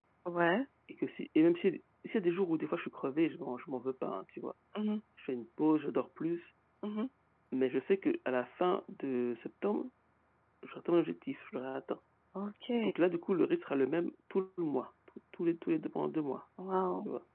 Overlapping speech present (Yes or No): No